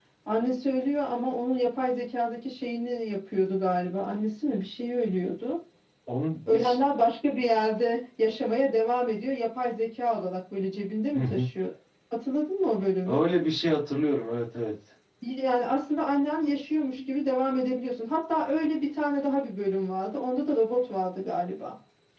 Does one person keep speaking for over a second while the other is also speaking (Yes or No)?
No